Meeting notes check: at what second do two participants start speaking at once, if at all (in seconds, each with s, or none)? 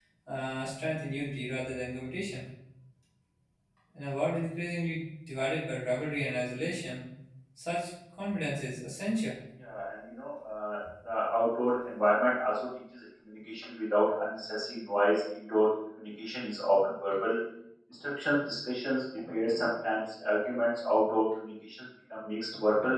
none